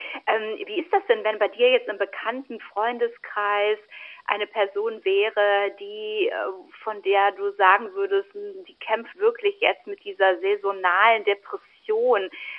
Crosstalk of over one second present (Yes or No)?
No